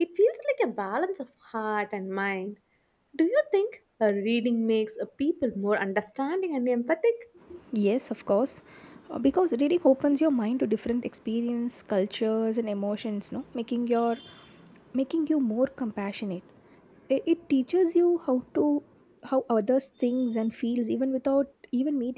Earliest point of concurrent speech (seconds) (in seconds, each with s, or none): none